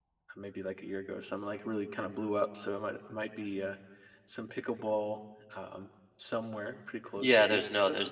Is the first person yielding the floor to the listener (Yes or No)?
Yes